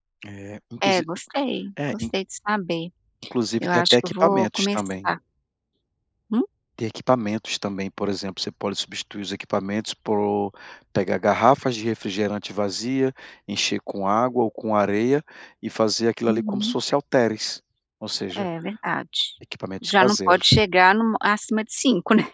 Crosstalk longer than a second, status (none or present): present